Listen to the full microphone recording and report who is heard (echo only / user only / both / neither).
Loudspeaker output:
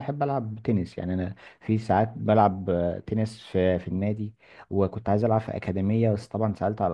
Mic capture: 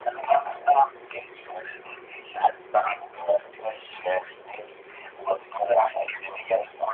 echo only